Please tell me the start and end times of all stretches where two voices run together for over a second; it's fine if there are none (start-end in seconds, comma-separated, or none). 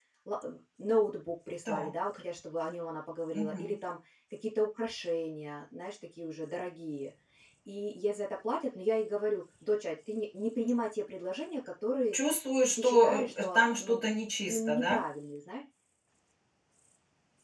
12.8-14.0